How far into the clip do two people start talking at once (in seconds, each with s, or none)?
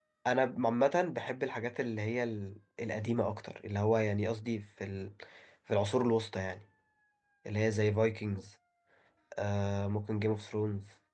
none